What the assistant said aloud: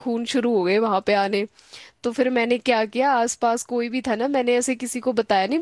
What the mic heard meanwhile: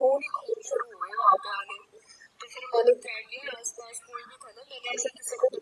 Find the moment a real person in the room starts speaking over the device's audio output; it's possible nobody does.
none

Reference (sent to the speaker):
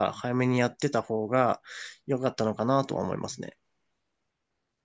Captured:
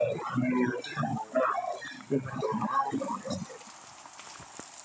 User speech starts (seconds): none

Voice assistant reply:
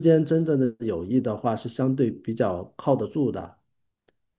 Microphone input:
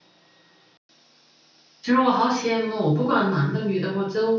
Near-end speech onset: 1.8 s

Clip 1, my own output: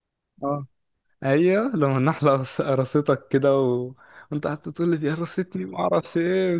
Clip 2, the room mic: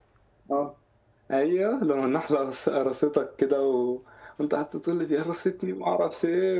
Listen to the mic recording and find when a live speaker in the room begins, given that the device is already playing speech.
none

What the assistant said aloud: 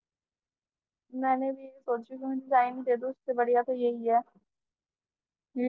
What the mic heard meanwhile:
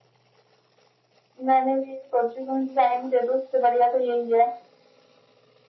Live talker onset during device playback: none

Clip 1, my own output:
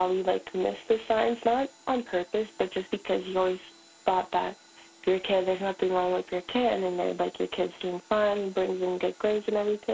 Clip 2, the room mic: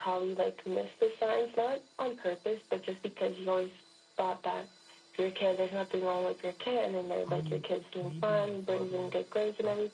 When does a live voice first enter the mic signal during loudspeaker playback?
7.2 s

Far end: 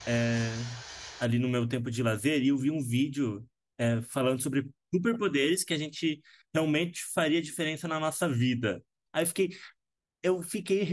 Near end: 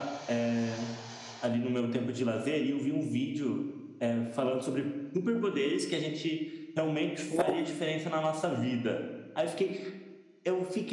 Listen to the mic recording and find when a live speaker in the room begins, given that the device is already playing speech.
7.3 s

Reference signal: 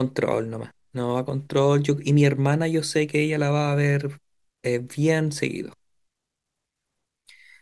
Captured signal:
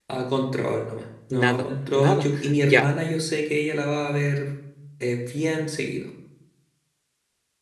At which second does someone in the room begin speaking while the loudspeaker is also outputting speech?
1.3 s

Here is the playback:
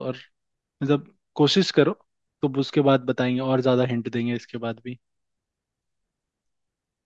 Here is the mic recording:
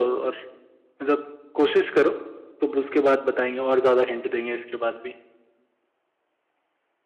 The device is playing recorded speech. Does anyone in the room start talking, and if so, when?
none

